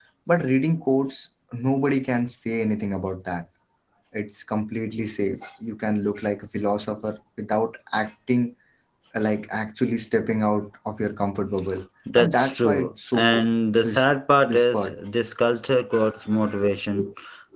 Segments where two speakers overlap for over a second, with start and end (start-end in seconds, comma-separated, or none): 12.2-13.4